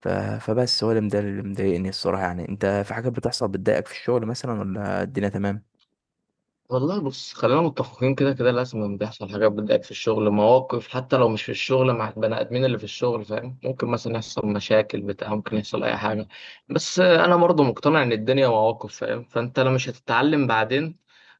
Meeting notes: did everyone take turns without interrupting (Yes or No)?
Yes